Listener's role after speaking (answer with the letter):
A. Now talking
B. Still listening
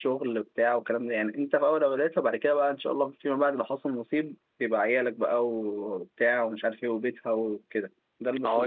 A